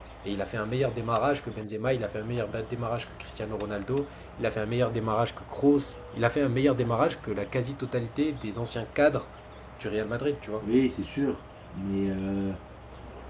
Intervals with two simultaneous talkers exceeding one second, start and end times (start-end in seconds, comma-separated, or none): none